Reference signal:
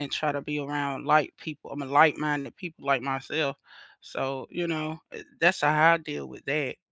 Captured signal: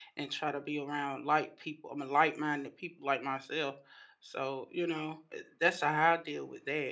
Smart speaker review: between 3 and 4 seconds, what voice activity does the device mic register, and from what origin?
echo only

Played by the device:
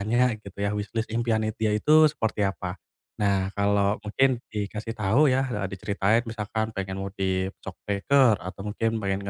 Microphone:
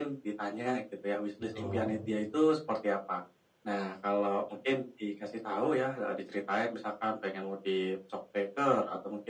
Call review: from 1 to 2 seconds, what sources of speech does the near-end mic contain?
both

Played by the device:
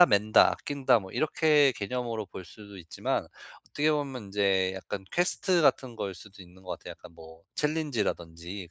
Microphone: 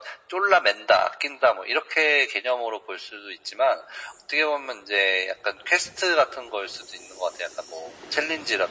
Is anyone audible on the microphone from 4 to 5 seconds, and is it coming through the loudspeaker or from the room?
echo only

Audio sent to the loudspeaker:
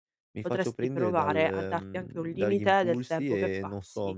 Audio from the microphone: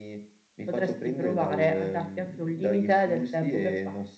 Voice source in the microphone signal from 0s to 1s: echo only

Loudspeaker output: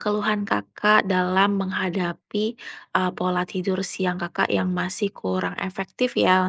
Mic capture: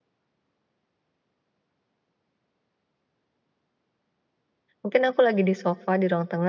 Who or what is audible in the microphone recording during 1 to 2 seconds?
neither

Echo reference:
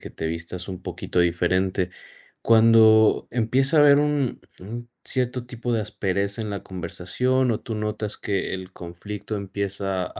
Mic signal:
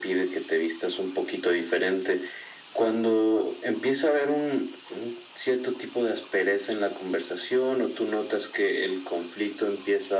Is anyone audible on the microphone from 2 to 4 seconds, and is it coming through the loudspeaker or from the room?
echo only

